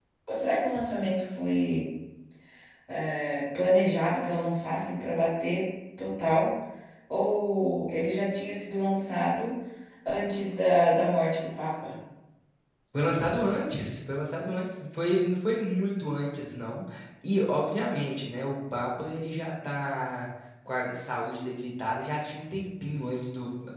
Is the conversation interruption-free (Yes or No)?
Yes